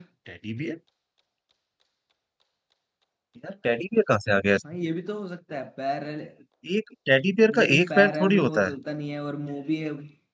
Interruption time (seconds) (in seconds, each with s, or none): 7.5 s